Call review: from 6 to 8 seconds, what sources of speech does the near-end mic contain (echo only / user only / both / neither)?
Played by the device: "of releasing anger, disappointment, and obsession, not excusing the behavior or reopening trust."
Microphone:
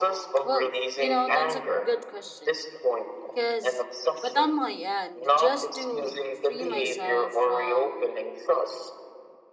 both